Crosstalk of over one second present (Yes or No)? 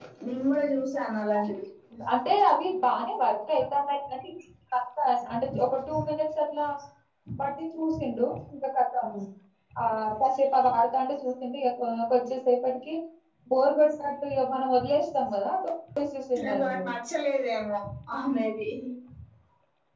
No